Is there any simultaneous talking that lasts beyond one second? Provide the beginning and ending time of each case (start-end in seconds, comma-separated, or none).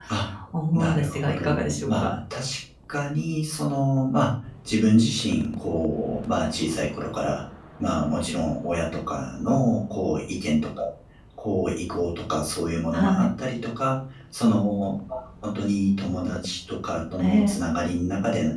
0.7-2.1